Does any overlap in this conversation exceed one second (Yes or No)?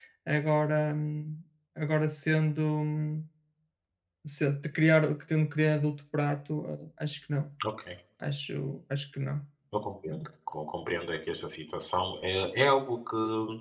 No